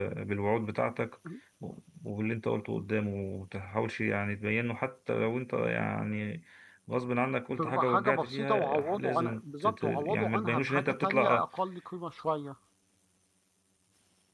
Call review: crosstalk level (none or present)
present